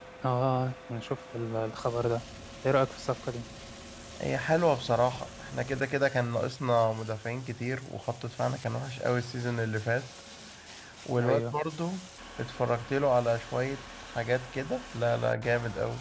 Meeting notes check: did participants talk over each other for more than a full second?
No

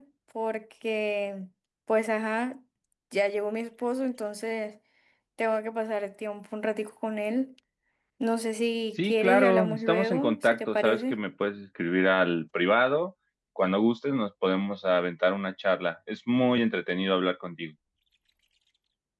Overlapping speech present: Yes, from 9.0 s

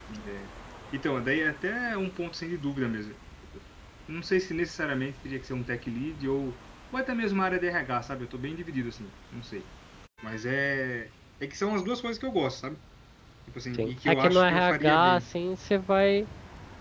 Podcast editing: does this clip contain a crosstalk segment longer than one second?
Yes, from 13.8 s

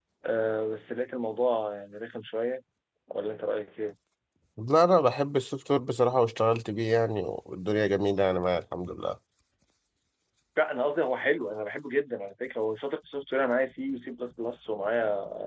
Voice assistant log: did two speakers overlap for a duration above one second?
No

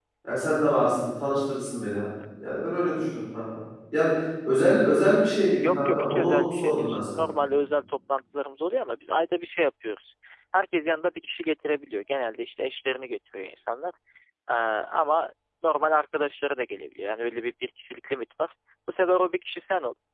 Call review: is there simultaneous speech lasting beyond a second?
Yes, from 5.6 s

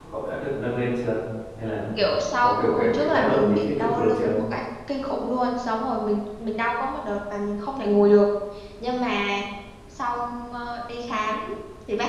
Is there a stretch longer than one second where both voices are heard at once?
Yes, from 2.4 s

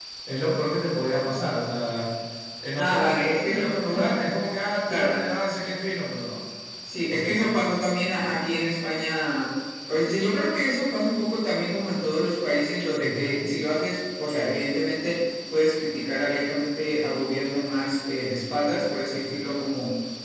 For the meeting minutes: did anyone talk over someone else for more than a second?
Yes, from 2.8 s

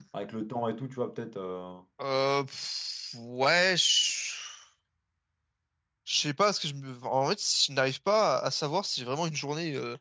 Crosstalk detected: No

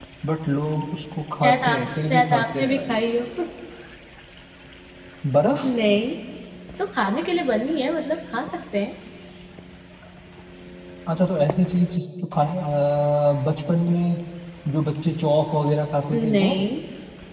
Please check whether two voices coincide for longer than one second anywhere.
Yes, from 1.4 s

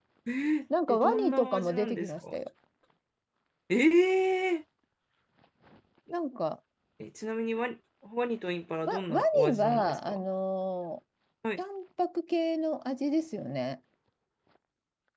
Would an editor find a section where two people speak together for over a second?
Yes, from 0.9 s

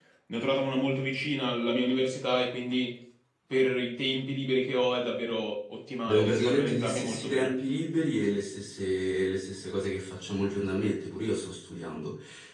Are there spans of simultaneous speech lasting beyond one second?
Yes, from 6.1 s

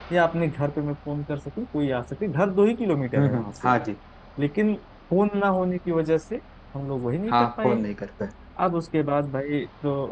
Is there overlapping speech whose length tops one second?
No

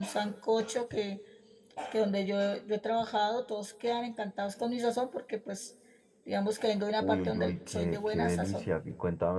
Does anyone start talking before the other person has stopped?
Yes, from 7.0 s

